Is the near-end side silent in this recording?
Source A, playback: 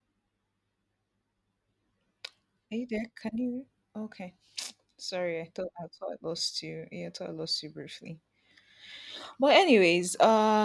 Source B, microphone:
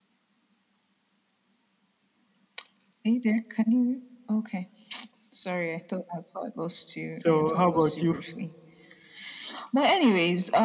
No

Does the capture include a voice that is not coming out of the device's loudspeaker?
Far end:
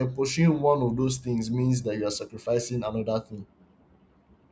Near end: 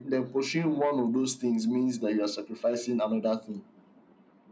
No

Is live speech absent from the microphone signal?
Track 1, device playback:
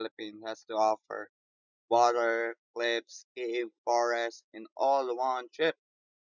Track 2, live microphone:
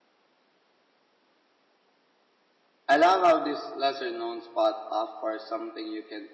No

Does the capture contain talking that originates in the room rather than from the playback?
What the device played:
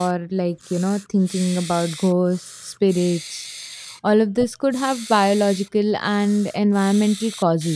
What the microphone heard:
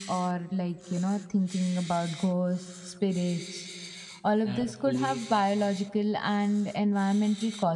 Yes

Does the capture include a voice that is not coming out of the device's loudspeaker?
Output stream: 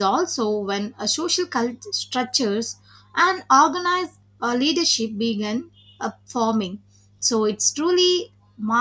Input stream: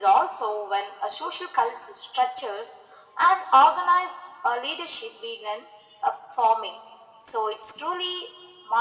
No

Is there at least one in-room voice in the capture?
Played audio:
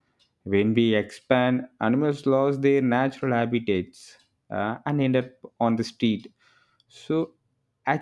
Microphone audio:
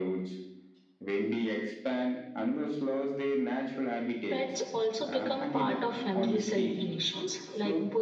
Yes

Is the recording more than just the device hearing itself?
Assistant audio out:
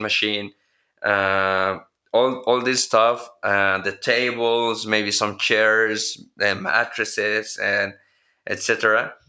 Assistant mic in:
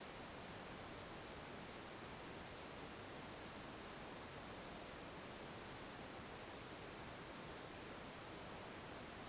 No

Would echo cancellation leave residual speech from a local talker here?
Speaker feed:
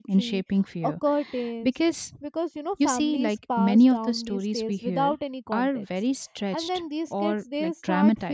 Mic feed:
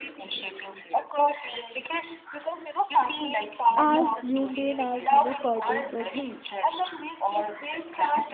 Yes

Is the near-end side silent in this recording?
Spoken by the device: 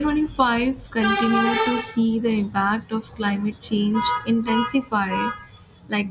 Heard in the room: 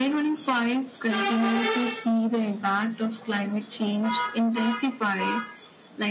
Yes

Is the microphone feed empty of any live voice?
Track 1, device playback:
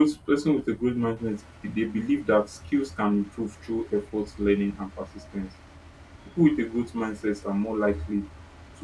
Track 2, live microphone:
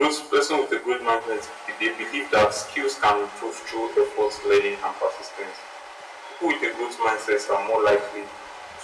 Yes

